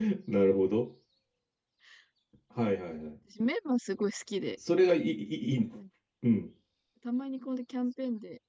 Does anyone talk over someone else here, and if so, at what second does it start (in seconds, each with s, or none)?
none